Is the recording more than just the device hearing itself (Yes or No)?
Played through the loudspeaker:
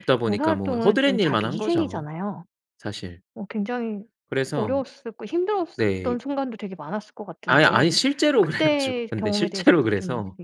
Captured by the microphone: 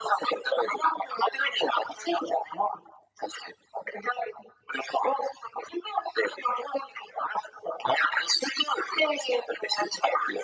No